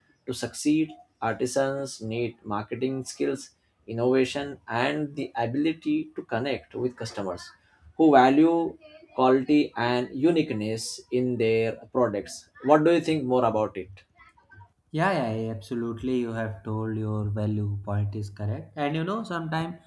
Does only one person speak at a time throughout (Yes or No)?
Yes